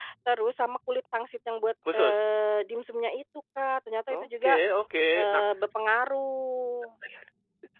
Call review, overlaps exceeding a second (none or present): none